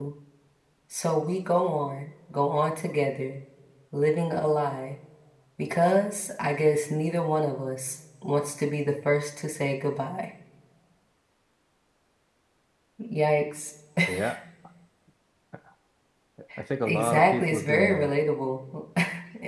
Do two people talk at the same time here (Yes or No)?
Yes